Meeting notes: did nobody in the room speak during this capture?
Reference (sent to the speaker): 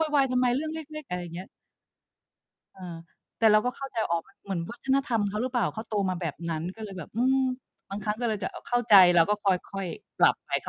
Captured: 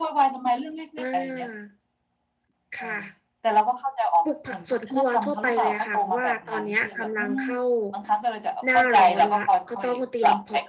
No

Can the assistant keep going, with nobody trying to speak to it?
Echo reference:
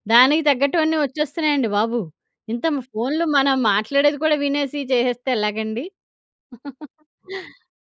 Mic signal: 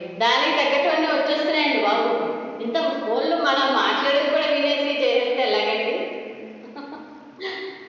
Yes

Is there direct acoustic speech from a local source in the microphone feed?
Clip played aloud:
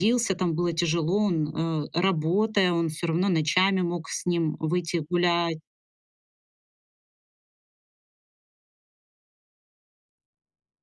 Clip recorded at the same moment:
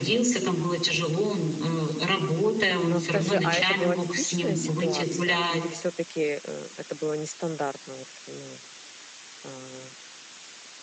Yes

